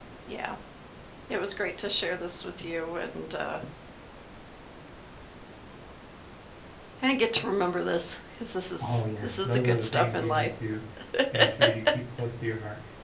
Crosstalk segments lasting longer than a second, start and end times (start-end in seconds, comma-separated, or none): 8.8-10.5